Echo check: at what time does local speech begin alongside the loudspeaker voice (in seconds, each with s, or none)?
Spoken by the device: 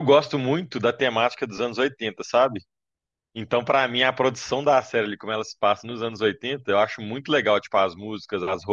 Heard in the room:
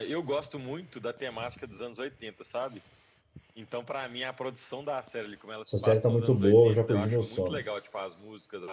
5.7 s